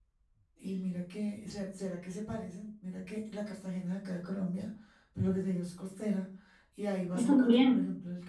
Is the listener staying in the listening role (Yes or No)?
Yes